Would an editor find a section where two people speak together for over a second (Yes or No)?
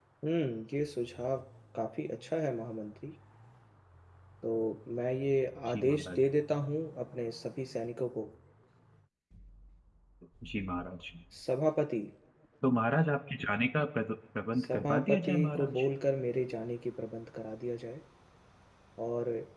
Yes